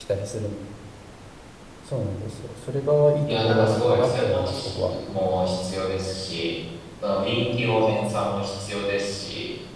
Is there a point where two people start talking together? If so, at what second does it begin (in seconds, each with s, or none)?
3.3 s